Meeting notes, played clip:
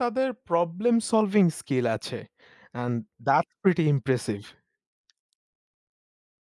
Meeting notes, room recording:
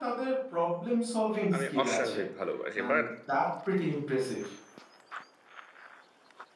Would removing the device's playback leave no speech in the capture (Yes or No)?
No